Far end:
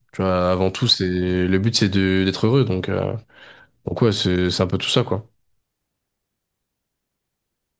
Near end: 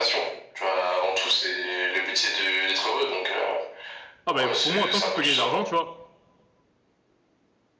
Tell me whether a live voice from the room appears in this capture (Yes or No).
Yes